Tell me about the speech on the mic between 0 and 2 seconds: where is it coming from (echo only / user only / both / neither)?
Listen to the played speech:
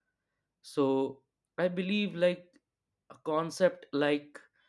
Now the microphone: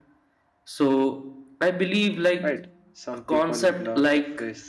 echo only